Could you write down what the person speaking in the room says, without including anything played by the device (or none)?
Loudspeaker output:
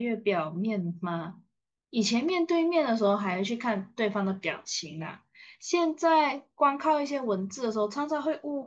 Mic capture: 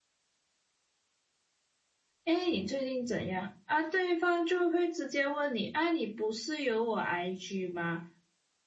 哎，你最近怎样啊？对方就会直接问你，啊，你不是有我 IG 吗？